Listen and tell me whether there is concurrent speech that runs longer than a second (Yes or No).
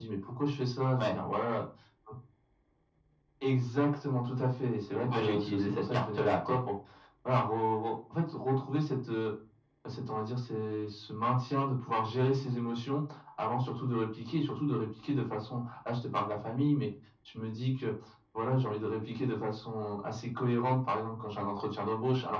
Yes